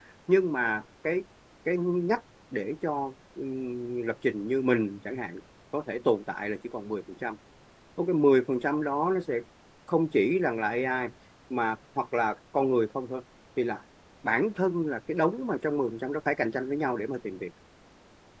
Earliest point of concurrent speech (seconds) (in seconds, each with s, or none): none